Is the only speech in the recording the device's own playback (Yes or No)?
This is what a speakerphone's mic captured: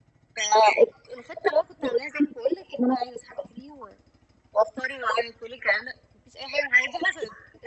Yes